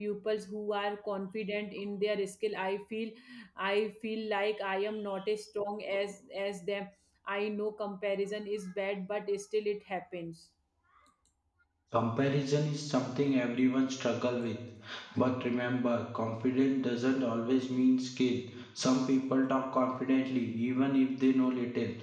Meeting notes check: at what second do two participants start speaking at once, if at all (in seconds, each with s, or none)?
none